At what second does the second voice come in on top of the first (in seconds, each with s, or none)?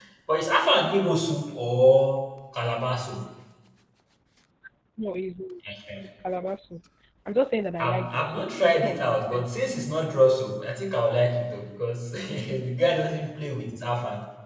7.8 s